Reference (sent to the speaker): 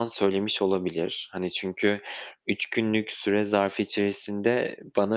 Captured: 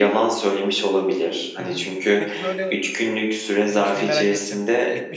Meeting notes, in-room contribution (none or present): present